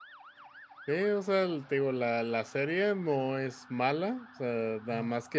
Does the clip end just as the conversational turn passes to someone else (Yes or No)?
No